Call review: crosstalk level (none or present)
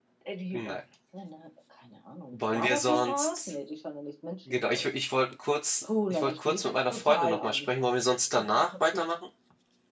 present